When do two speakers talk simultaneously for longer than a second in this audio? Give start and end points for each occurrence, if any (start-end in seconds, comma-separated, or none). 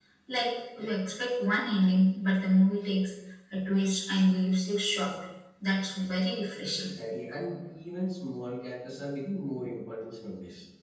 none